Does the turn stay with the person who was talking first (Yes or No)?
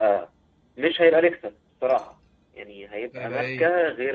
Yes